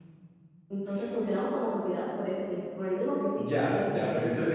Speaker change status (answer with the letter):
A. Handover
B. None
A